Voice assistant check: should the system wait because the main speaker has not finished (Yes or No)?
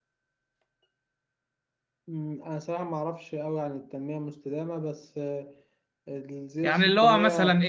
No